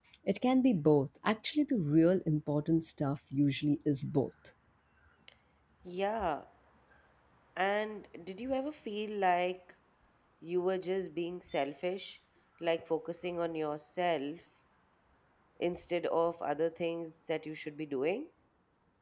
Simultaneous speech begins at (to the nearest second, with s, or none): none